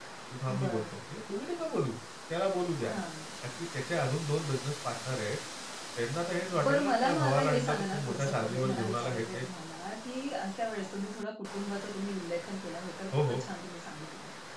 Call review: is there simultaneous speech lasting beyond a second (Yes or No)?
Yes